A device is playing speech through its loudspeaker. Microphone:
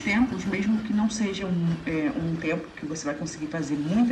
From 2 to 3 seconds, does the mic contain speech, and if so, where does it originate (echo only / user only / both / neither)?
echo only